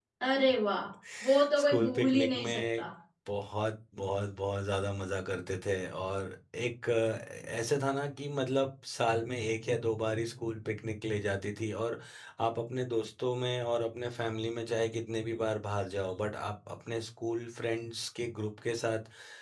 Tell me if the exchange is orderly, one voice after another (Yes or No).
No